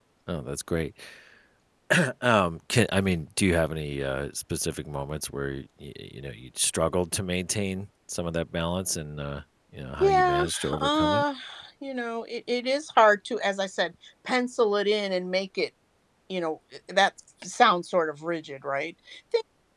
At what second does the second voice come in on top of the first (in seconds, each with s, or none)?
10.0 s